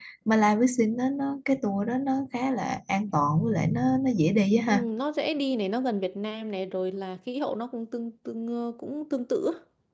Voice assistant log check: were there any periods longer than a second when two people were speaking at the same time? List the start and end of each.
none

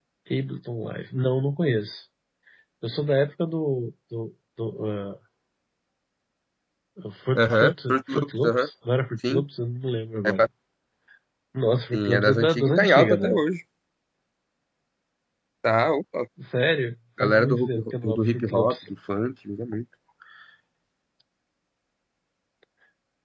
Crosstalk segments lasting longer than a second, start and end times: 7.4-8.7, 11.9-13.4, 17.2-18.8

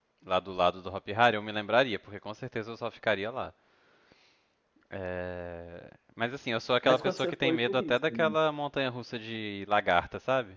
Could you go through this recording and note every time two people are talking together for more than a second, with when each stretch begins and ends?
6.8-8.4

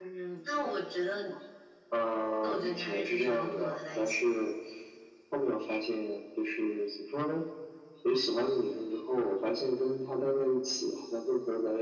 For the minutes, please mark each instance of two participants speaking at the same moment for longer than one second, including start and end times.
2.4-4.4

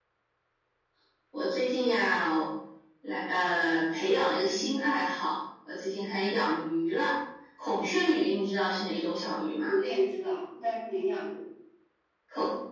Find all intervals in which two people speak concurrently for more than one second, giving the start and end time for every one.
none

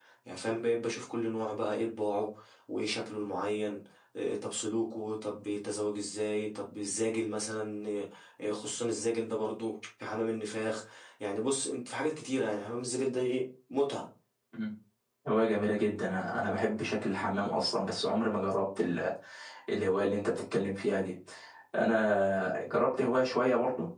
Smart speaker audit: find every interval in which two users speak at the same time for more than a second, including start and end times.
none

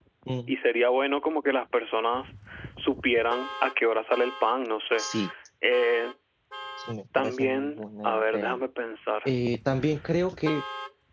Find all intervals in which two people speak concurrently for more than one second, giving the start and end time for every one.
7.2-8.6

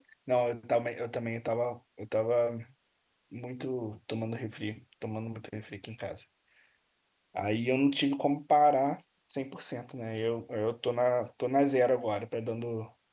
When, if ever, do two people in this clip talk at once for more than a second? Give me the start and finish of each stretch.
none

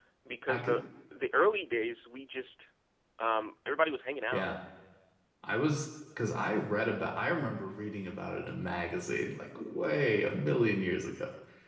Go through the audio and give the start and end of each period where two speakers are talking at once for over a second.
none

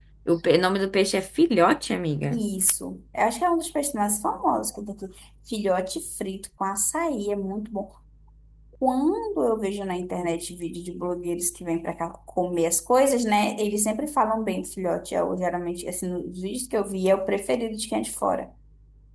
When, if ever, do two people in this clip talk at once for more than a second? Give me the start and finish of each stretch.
none

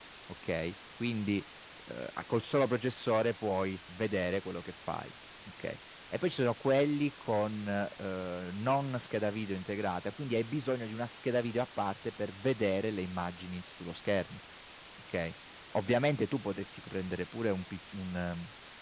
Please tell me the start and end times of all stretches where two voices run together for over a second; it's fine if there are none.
none

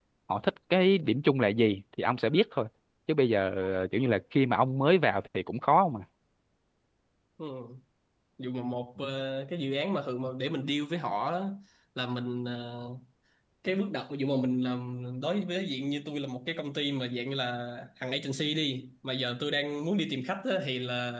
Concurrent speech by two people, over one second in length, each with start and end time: none

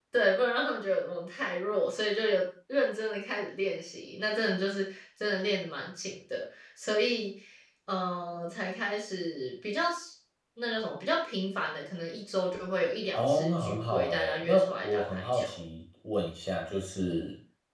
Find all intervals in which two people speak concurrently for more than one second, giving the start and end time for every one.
13.1-15.6

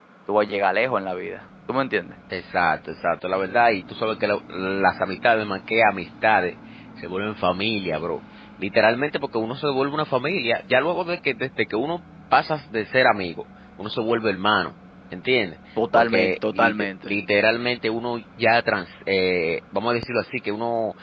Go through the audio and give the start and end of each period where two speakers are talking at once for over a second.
15.9-17.1

